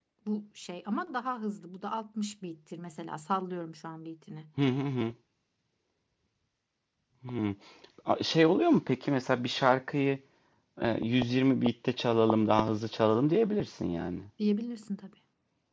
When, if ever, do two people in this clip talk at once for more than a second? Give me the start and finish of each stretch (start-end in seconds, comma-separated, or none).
none